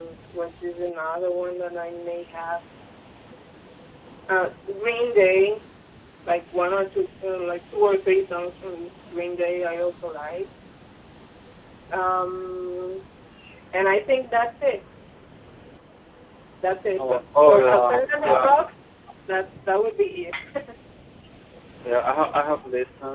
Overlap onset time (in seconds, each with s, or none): 17.0 s